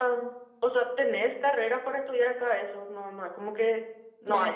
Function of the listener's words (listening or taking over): taking over